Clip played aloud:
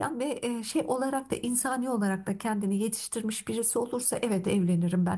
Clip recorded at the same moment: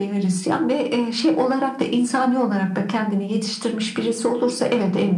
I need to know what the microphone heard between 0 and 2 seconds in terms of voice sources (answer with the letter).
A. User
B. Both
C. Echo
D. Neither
C